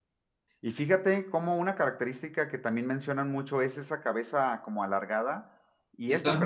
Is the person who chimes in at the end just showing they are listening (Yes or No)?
Yes